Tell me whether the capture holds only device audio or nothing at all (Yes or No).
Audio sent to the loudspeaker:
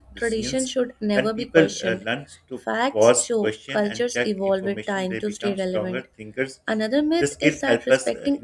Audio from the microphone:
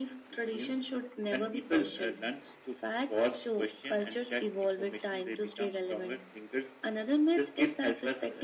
Yes